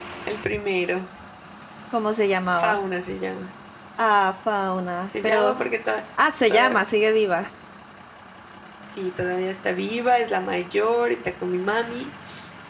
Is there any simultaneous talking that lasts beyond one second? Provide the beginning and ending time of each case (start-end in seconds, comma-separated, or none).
none